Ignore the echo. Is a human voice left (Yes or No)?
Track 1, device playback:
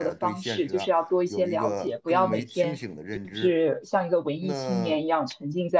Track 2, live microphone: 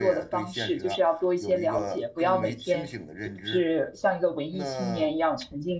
No